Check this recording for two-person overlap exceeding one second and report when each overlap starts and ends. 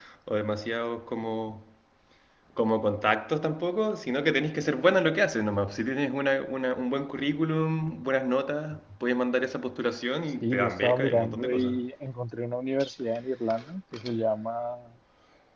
10.4-11.7

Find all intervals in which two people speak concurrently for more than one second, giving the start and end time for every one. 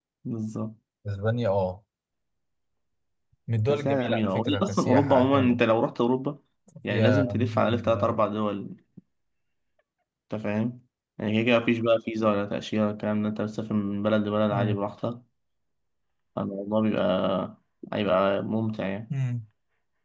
3.7-5.6, 6.9-8.2

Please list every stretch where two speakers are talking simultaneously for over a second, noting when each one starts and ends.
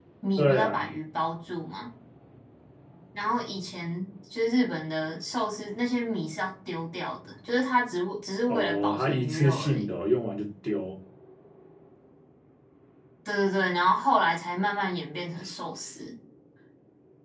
8.5-9.9

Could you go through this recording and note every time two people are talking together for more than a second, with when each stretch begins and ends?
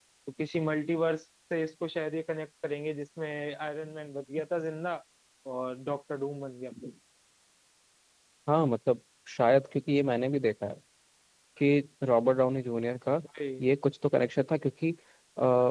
none

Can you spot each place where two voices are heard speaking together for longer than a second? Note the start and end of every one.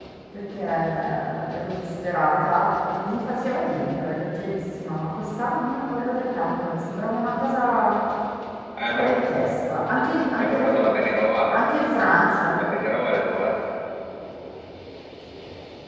none

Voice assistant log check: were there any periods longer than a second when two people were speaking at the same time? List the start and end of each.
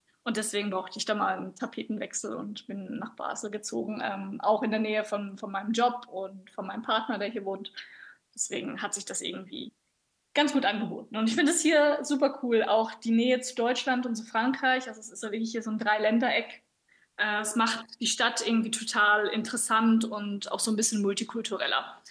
none

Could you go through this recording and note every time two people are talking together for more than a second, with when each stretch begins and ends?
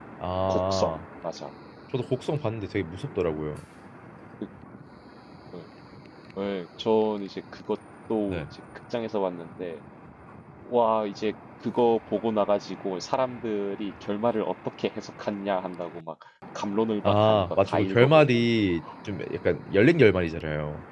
17.0-18.5

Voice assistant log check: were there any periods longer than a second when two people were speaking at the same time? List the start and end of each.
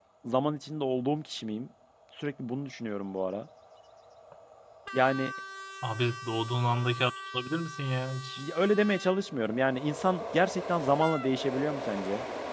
none

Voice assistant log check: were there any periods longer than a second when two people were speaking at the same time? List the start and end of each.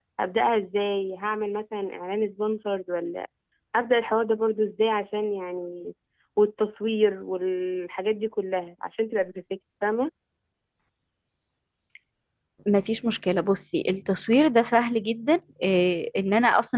none

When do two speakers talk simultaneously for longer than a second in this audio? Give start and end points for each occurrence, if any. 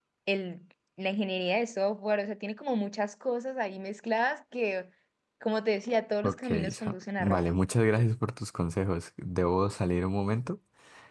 6.2-7.6

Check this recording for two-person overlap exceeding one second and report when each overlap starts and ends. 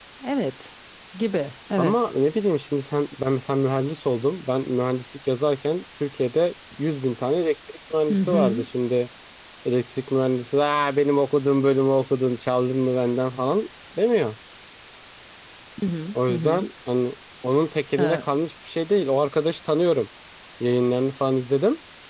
none

